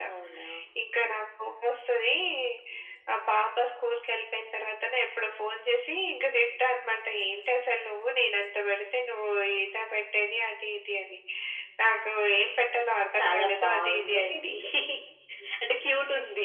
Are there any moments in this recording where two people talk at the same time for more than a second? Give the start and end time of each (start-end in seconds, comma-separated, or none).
13.2-14.4